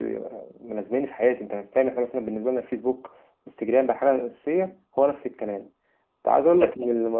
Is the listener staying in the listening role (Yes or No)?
Yes